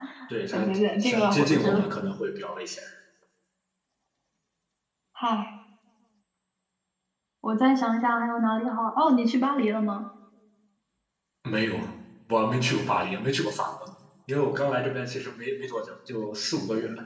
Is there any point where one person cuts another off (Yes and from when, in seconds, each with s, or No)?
Yes, from 0.5 s